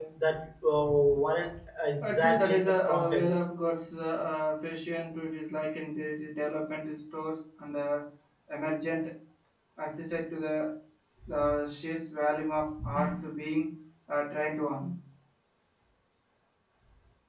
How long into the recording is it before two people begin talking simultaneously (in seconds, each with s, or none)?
2.0 s